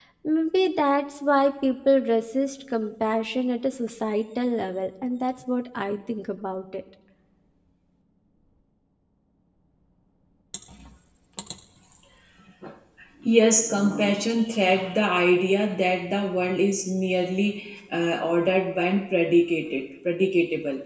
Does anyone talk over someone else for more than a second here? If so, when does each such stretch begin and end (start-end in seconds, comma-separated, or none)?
none